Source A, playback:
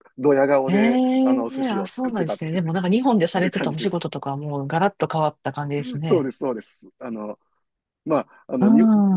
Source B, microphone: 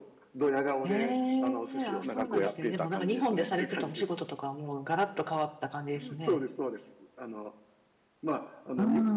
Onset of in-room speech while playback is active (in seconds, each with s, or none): 2.0 s